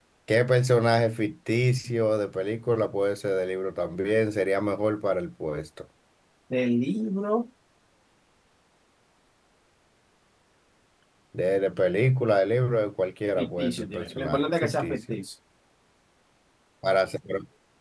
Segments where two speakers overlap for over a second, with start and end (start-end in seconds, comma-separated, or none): 13.4-15.2